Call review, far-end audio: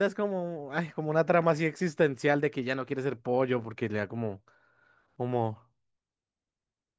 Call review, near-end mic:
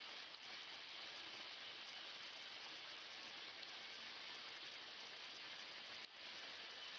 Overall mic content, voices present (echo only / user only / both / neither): neither